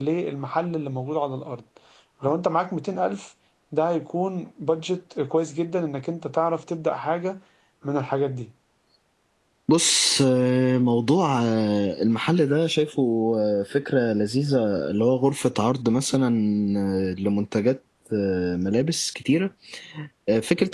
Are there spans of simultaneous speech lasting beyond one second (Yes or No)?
No